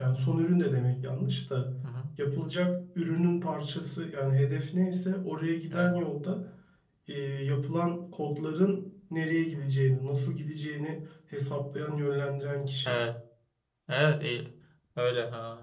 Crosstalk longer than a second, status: none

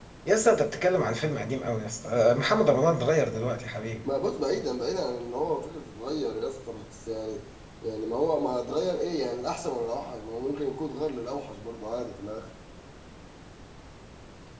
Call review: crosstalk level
none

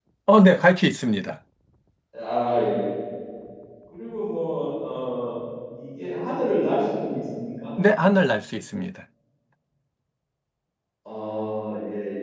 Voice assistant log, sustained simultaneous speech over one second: none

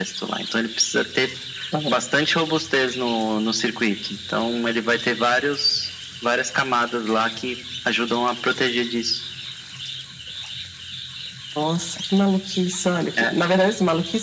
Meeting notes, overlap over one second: none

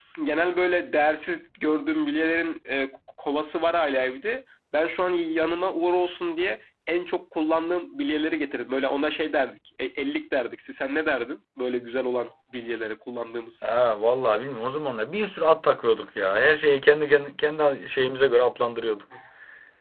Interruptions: none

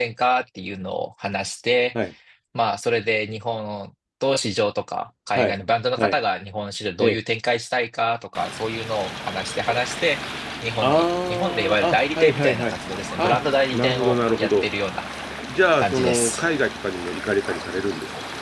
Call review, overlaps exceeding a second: present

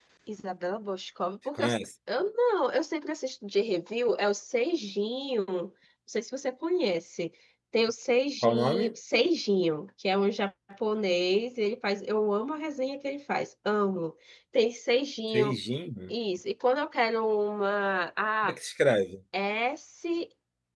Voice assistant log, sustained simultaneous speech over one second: none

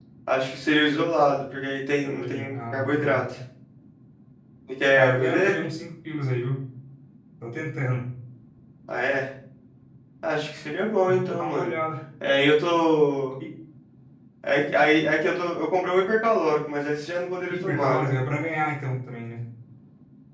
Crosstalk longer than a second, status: present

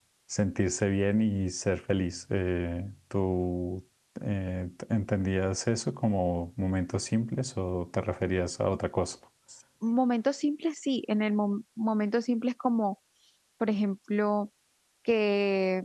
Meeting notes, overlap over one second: none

